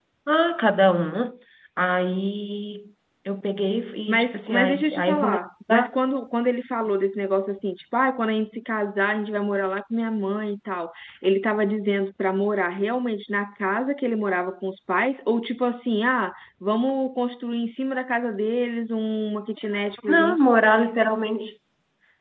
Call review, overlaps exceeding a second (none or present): present